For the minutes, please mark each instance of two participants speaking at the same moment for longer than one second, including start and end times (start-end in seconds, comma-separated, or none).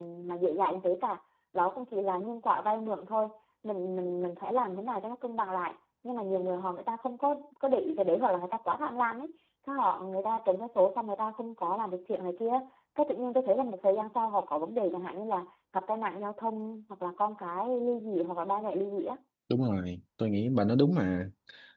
none